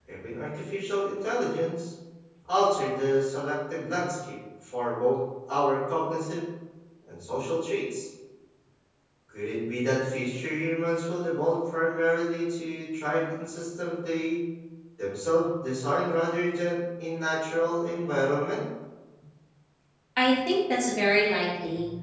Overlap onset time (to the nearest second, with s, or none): none